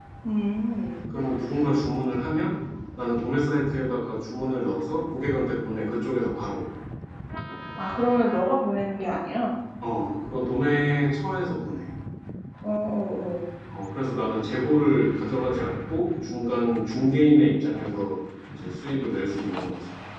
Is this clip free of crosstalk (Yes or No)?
Yes